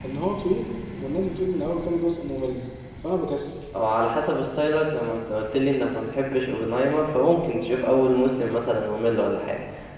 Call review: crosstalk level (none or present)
none